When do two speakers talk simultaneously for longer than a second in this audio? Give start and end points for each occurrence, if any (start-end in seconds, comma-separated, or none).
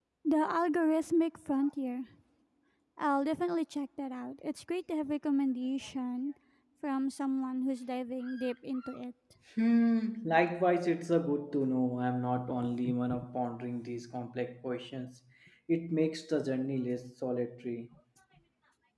none